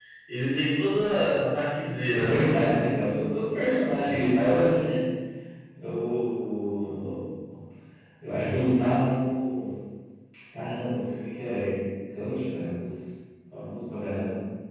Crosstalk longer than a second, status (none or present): none